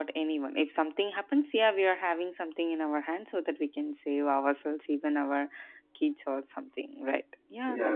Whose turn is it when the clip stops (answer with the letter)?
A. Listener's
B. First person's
A